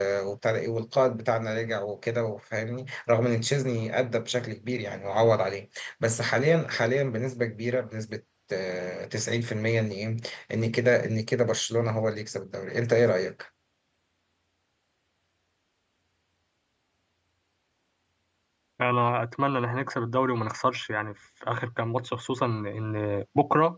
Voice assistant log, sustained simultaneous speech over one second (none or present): none